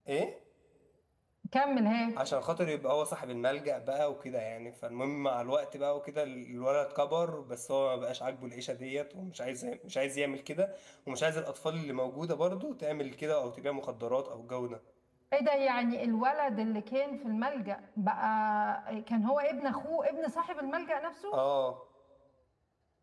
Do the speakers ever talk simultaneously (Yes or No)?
No